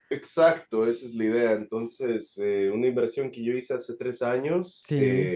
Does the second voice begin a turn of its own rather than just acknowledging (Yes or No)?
No